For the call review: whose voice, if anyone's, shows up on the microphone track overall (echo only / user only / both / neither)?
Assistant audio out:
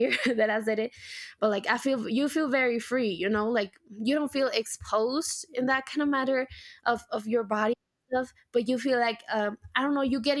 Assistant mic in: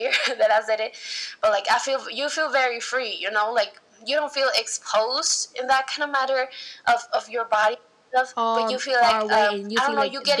both